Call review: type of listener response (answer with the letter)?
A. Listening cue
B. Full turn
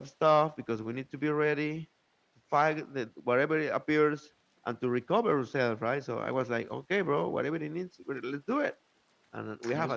A